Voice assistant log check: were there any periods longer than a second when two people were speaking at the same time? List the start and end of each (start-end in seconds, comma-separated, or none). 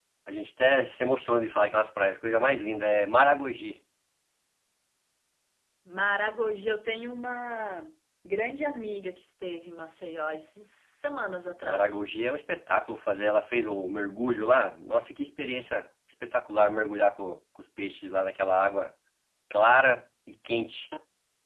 none